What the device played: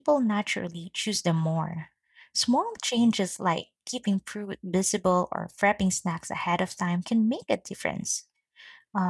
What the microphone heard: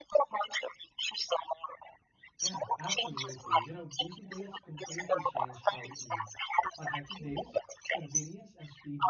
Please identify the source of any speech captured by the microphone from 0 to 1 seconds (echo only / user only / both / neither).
echo only